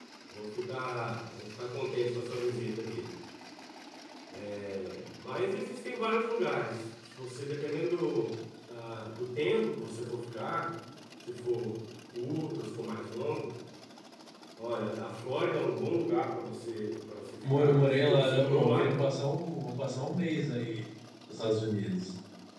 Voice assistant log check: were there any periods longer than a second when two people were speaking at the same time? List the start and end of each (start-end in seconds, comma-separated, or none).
17.6-19.1